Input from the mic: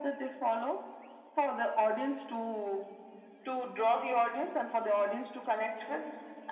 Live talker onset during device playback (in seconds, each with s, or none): none